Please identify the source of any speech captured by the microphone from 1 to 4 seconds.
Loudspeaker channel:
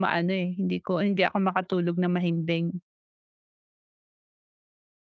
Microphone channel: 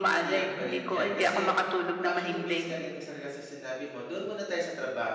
both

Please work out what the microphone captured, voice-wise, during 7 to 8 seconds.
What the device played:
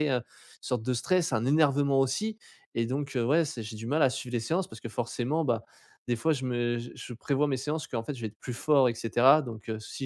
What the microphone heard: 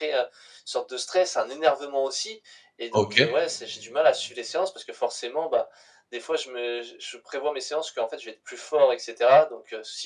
echo only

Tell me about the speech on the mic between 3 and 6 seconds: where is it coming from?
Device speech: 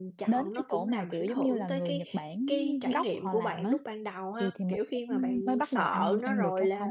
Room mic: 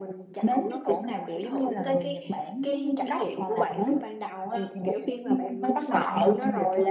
echo only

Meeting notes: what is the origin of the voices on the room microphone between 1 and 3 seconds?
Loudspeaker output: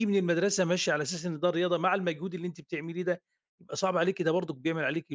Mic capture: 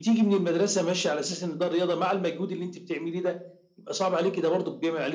echo only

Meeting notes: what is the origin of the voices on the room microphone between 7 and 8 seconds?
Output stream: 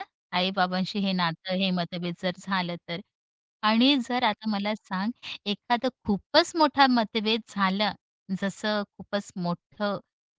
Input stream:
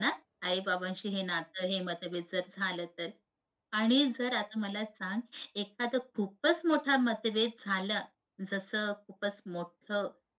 echo only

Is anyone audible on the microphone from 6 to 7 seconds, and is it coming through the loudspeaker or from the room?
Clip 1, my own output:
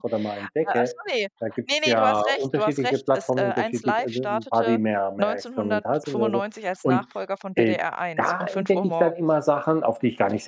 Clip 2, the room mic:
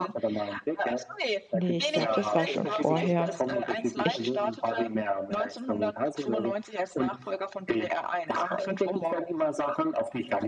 echo only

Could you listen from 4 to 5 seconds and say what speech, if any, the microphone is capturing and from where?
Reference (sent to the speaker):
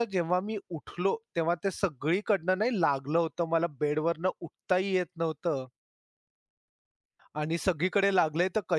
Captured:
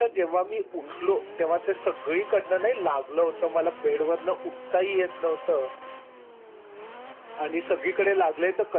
echo only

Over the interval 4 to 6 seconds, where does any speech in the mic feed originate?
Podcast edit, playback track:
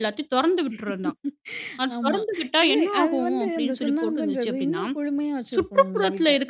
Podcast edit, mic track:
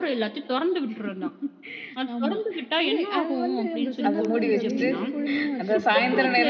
both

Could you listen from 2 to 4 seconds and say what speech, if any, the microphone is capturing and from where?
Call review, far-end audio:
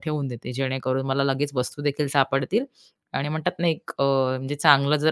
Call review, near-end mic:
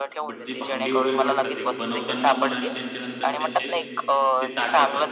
both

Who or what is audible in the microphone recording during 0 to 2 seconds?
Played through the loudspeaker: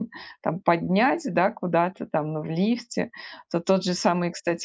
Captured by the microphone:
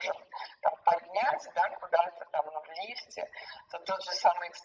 echo only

